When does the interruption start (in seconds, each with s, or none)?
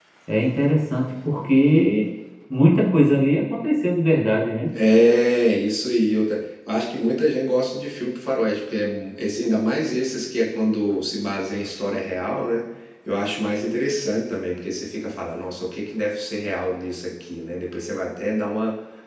none